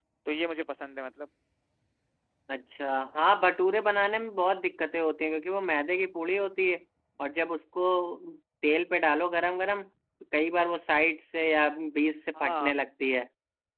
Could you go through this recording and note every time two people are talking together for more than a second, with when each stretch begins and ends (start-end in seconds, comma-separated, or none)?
none